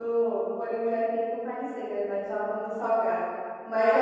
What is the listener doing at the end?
listening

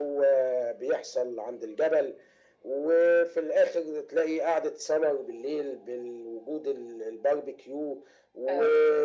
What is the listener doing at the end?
listening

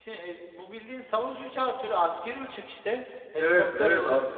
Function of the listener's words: taking over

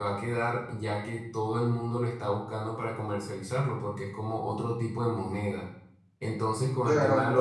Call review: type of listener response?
listening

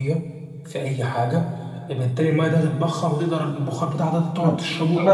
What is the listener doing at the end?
taking over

